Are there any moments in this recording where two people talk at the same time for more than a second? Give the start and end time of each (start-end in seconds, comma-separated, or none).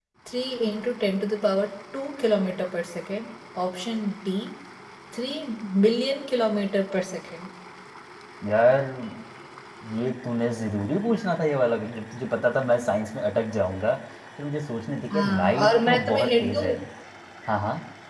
15.1-16.7